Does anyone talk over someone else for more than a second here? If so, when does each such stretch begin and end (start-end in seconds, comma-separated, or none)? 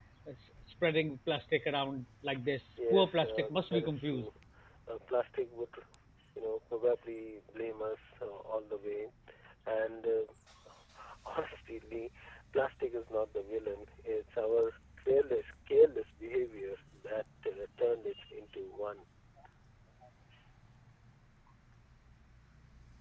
2.9-4.3